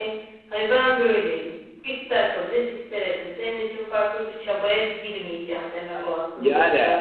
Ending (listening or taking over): taking over